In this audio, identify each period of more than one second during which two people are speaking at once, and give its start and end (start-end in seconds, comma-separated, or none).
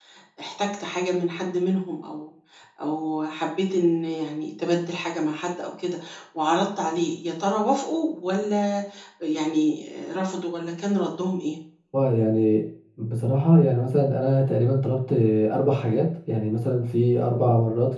none